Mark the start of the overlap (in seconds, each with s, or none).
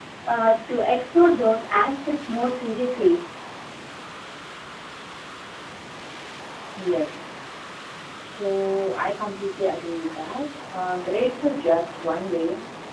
none